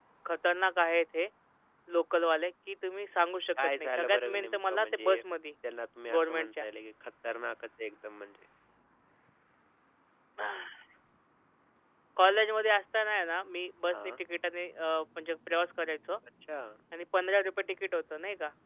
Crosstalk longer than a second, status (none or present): present